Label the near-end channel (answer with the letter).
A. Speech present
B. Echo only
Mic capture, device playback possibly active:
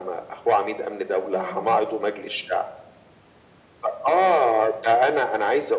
A